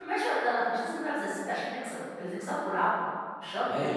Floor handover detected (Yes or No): Yes